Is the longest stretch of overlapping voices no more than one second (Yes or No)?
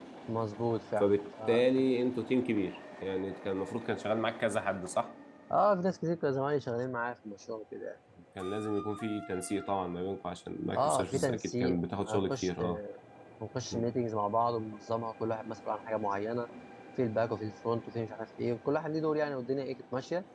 No